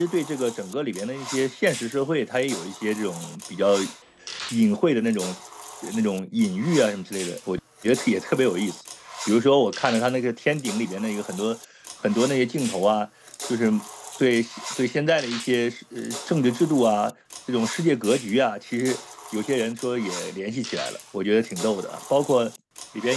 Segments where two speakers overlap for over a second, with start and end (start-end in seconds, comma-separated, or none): none